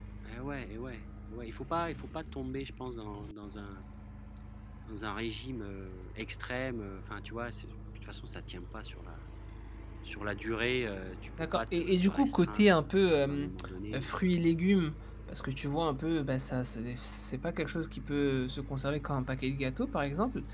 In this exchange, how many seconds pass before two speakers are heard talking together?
11.5 s

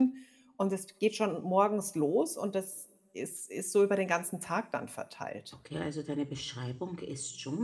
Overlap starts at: none

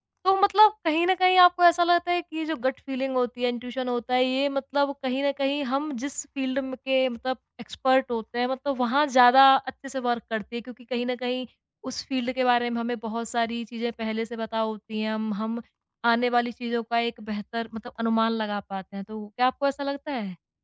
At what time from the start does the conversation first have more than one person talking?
none

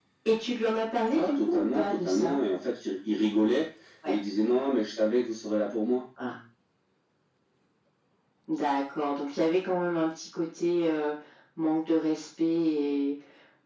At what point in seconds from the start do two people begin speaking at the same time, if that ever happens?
1.1 s

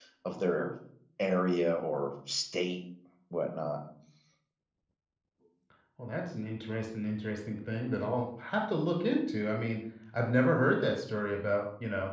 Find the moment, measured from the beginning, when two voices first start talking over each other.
none

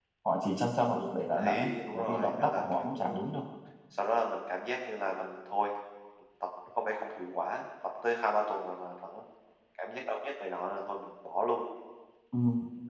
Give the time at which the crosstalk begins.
1.4 s

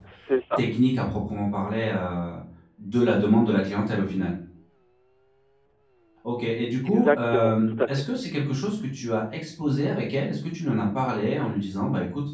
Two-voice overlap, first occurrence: 6.8 s

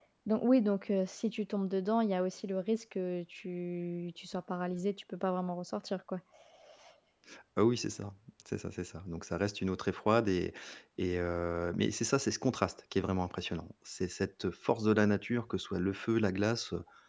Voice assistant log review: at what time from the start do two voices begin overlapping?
none

